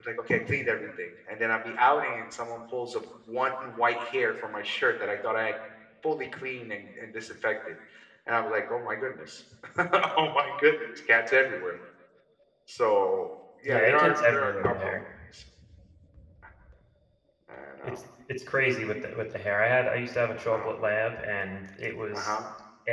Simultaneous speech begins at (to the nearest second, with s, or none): 14 s